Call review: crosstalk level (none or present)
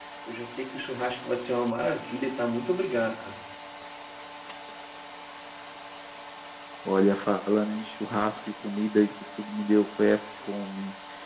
none